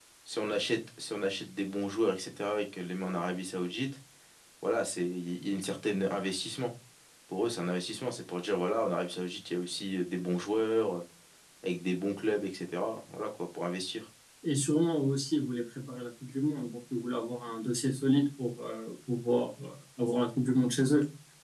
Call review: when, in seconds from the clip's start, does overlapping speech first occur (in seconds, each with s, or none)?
none